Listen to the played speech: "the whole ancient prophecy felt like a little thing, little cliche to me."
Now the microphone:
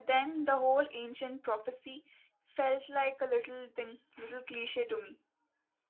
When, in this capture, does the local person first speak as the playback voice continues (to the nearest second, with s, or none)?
none